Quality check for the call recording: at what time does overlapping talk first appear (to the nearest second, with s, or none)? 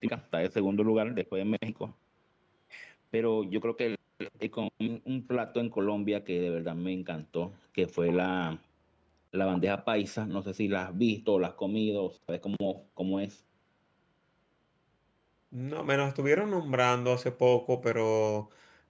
none